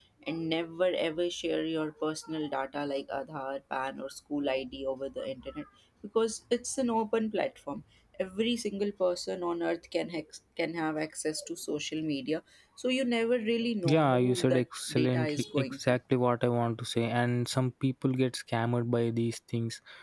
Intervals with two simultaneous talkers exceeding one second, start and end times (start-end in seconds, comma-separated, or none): 13.8-16.0